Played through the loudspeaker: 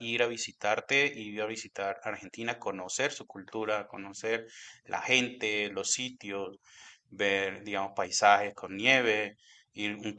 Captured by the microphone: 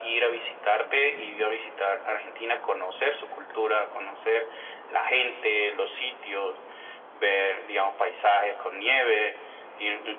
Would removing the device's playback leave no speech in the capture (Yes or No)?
Yes